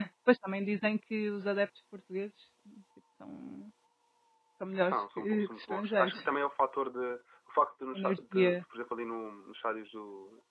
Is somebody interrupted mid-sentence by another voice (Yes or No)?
Yes